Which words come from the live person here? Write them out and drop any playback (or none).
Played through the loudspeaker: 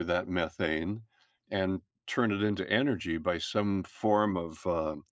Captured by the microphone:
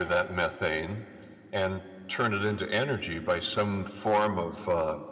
none